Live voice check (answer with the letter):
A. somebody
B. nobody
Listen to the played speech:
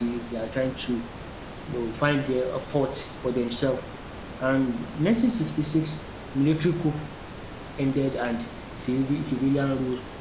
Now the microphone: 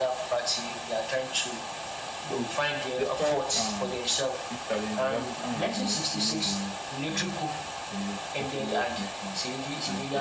A